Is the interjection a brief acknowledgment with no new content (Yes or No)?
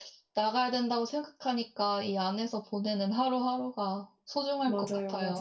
No